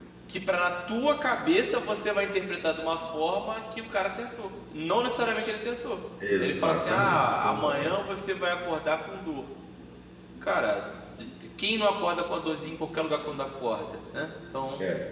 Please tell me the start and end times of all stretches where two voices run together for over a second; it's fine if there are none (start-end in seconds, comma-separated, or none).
6.4-8.0